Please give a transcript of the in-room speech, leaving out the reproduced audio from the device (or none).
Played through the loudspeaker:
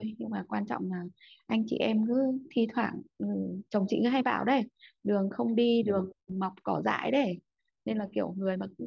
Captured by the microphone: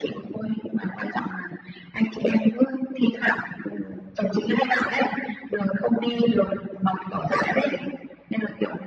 none